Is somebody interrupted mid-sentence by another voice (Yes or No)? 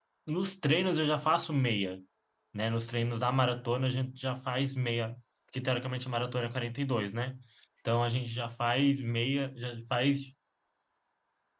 No